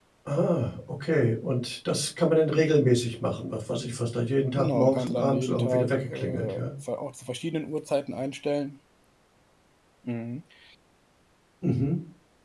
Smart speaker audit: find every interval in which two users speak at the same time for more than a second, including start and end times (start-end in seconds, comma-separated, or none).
4.6-6.6